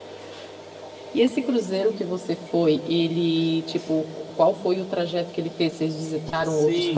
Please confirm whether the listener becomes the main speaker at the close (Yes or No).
Yes